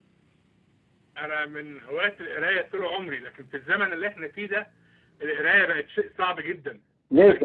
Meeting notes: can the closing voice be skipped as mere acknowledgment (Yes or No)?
Yes